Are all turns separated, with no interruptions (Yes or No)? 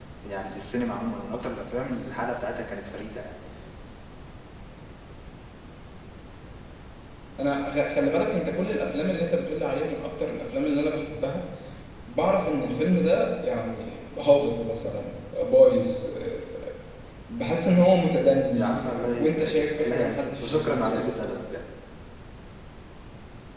No